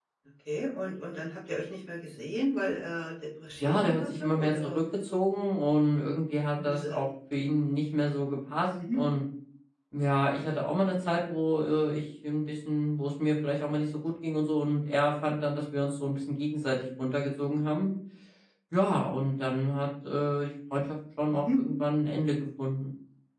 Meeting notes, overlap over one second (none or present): present